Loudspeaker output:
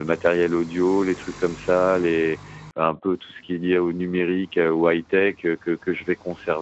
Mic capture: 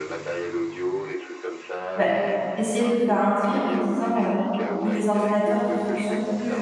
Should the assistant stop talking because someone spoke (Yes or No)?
Yes